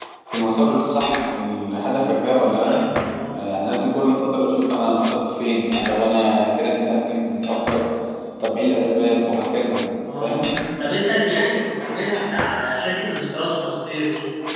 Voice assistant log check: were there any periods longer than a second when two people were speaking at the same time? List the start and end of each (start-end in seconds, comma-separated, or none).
none